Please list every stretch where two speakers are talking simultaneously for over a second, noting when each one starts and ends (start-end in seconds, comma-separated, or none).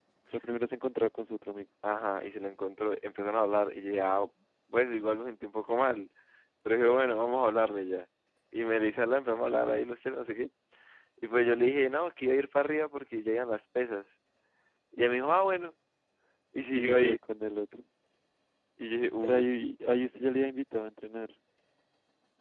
none